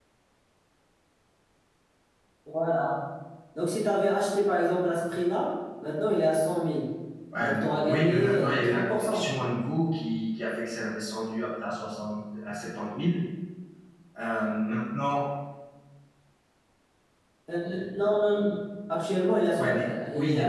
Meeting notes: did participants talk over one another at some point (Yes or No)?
Yes